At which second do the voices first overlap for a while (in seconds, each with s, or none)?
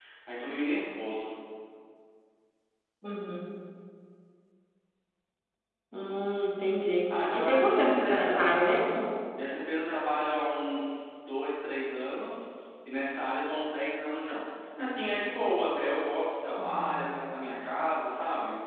7.1 s